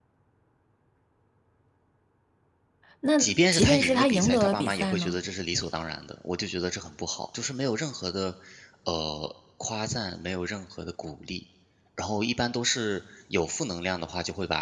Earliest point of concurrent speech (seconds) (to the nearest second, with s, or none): 3 s